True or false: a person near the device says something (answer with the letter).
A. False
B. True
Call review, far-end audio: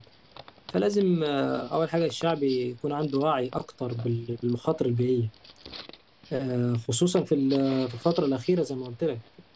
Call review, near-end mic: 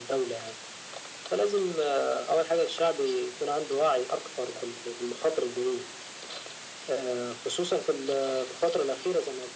A